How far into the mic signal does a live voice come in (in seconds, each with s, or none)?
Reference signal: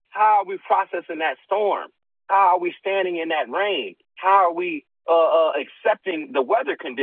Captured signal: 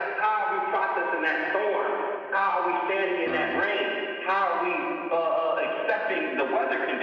3.3 s